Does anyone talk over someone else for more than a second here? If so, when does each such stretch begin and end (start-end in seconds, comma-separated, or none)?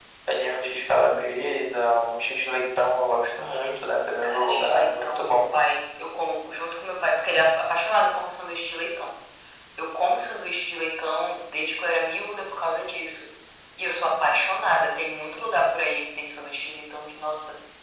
4.2-5.4